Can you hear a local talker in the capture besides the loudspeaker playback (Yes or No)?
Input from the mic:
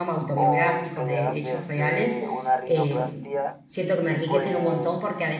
Yes